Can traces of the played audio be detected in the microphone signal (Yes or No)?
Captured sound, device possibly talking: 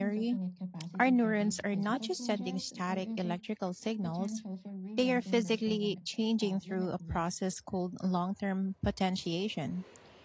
Yes